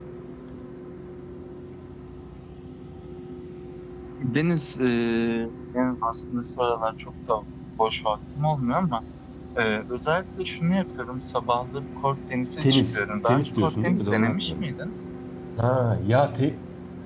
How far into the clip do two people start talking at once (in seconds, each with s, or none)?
12.6 s